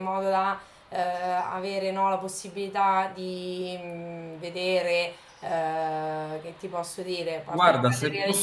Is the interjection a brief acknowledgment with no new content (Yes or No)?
No